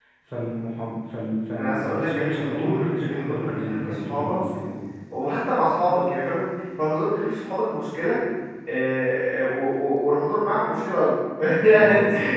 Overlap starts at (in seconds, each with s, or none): 1.6 s